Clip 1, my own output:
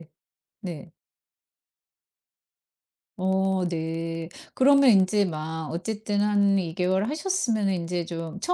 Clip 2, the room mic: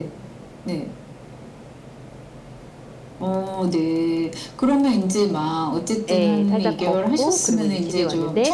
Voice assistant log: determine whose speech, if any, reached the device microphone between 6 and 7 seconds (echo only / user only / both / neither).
both